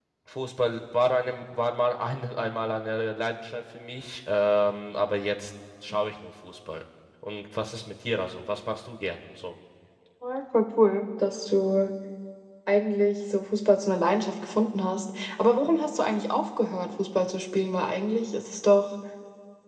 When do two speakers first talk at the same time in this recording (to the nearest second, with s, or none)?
none